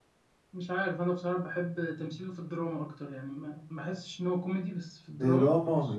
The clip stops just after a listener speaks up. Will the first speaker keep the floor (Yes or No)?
No